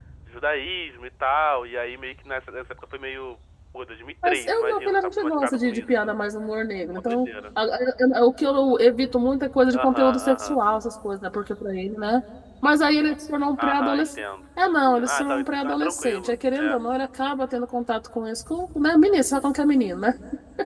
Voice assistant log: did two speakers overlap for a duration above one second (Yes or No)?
Yes